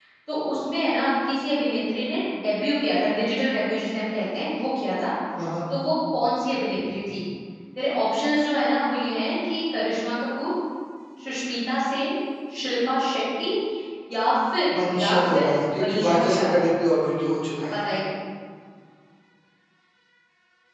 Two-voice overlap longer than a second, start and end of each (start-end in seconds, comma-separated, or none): 15.0-16.6